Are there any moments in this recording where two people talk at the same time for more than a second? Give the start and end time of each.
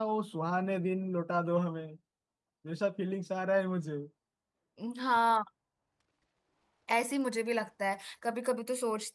none

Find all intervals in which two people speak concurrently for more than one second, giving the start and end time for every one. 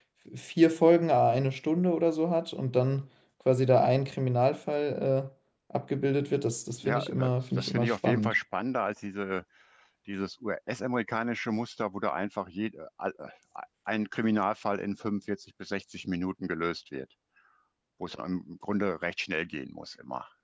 6.8-8.3

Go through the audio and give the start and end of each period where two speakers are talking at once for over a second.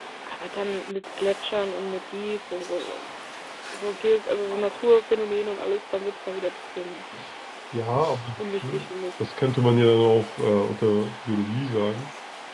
none

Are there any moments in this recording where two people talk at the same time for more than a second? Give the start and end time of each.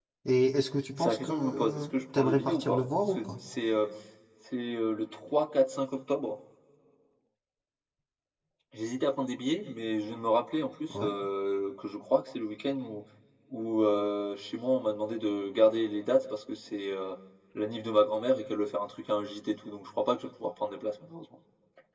1.0-3.4

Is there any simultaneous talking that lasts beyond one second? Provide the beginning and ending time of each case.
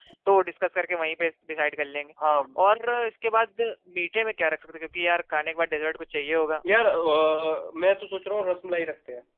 none

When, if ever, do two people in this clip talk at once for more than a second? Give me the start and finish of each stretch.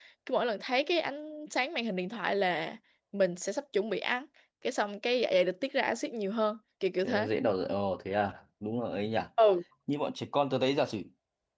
none

